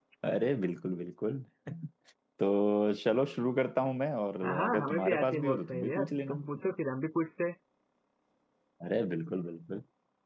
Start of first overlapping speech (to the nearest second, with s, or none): 4 s